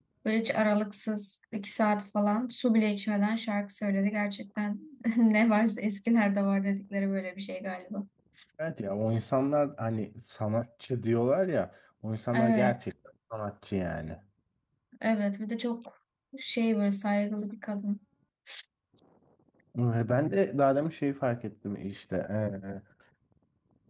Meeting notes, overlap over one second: none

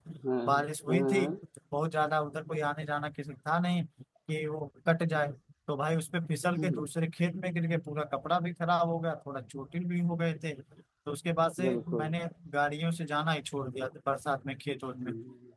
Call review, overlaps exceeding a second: none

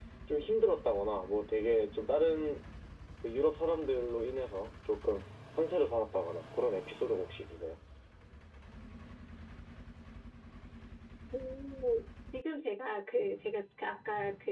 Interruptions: none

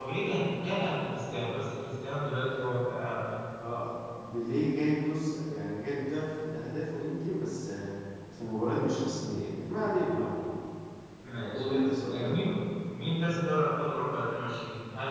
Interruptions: present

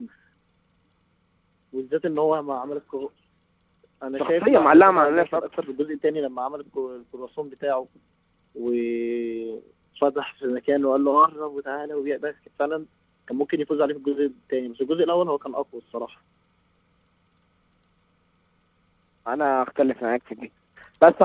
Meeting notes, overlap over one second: present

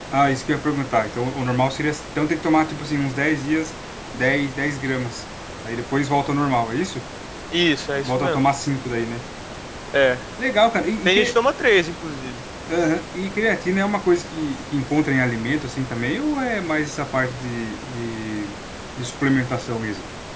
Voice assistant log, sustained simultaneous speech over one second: none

